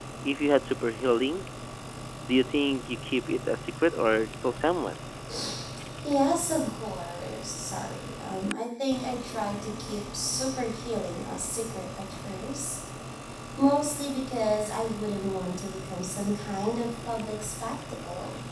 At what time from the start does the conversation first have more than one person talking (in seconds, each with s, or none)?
none